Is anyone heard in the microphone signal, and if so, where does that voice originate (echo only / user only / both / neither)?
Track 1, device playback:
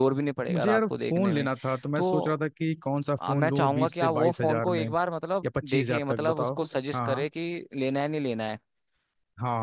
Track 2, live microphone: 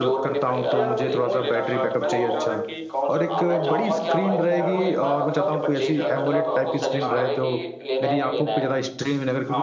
both